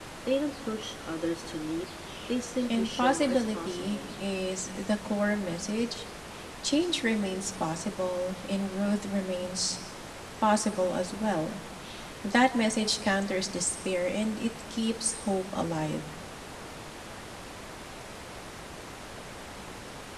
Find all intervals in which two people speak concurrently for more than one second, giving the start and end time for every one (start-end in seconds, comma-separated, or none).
2.7-4.0